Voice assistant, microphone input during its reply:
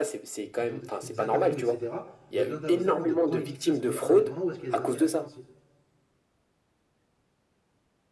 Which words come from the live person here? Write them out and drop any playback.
qui, pose- qui fait des interviews, etc. J'ai besoin de savoir de quand il dit quelque chose qu'il est indépendant ou est-ce qu'il y a des intérêts financiers.

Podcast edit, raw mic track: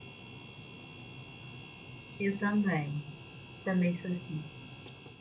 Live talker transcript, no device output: Eu também. Também sou assim.

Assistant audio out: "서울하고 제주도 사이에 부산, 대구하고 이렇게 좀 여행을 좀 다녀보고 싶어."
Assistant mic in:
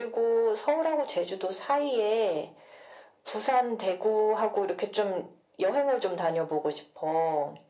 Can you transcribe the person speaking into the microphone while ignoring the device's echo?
none

